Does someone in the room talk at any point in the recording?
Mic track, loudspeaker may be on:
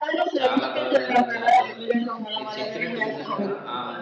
Yes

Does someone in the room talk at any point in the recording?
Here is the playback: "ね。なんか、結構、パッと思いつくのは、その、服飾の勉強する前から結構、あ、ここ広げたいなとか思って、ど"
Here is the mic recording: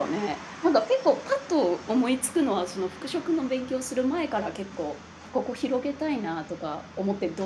No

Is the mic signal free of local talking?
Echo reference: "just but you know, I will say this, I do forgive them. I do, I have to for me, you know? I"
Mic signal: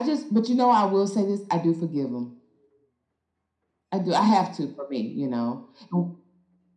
Yes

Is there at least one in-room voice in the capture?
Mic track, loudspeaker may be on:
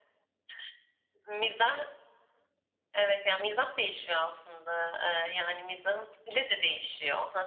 No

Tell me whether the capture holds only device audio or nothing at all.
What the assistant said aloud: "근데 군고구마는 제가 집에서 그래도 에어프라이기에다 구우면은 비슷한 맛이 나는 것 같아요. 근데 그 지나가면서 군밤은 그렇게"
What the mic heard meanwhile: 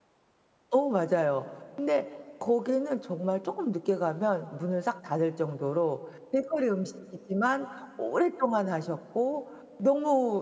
No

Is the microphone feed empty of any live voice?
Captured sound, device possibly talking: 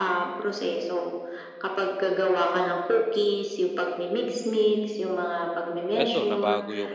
No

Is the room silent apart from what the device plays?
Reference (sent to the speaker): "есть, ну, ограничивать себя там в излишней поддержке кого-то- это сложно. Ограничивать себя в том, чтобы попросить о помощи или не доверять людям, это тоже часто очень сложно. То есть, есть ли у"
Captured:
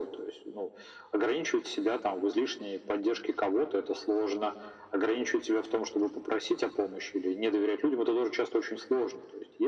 Yes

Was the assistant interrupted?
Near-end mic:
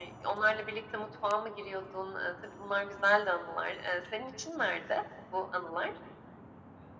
No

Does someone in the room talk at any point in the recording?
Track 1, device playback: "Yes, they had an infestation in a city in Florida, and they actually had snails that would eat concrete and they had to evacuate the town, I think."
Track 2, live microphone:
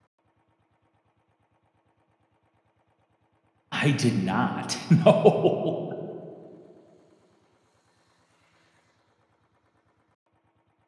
Yes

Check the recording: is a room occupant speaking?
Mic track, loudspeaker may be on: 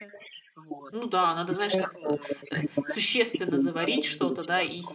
Yes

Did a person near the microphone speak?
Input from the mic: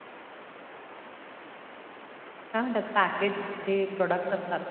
Yes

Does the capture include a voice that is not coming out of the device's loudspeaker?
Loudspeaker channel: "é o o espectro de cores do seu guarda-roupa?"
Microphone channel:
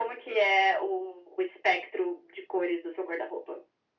No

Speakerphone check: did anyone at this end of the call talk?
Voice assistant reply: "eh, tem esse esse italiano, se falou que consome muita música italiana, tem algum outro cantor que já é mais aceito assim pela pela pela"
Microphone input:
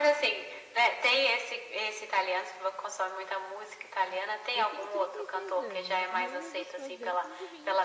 Yes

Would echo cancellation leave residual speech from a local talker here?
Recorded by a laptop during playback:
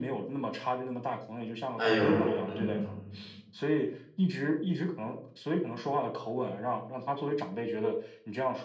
Yes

